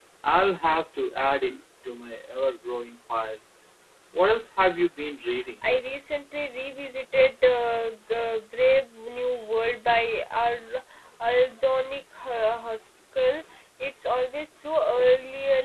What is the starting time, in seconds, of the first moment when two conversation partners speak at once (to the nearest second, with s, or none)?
none